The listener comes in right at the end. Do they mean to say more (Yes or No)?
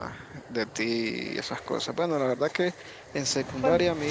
No